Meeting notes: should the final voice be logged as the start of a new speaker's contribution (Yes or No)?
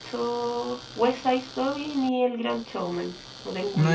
Yes